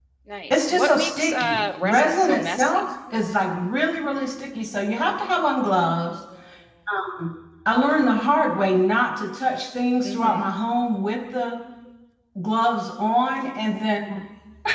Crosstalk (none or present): present